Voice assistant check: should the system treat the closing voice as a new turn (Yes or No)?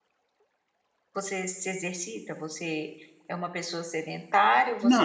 Yes